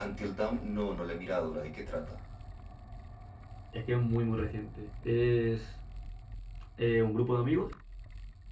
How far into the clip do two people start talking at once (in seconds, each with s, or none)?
none